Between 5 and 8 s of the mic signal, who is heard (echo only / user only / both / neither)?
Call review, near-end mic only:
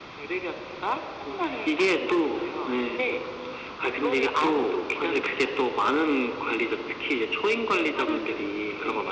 echo only